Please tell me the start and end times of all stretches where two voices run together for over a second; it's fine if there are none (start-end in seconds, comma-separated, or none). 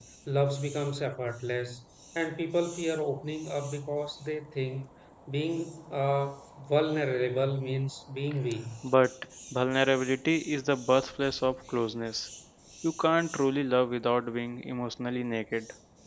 none